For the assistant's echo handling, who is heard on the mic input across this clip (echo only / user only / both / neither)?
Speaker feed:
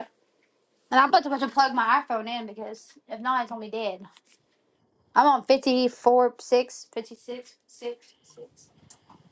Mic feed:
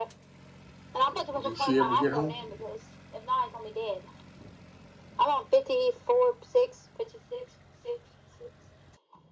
both